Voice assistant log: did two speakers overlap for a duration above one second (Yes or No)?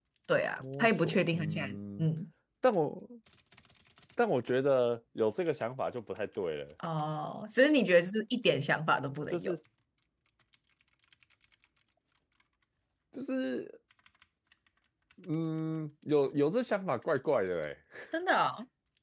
Yes